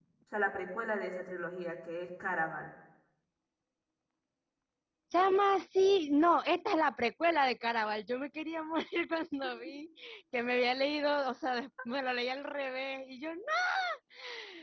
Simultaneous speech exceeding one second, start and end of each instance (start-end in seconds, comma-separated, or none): none